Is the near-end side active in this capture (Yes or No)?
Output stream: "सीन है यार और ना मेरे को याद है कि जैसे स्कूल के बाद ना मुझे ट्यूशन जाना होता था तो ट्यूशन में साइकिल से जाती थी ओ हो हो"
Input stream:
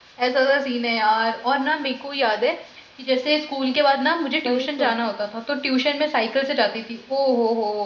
Yes